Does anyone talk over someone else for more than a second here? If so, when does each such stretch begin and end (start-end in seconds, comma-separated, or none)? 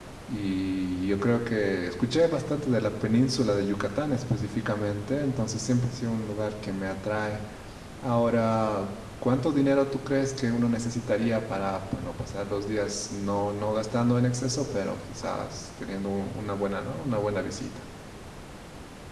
none